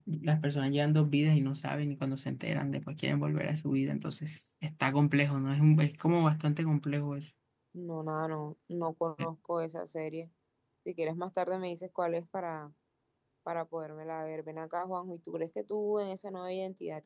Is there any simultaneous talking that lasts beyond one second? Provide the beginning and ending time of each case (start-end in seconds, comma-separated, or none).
none